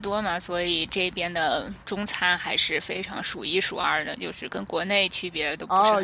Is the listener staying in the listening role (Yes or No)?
No